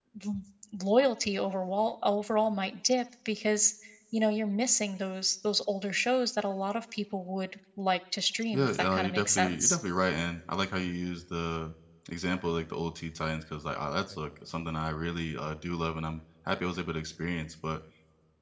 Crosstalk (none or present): present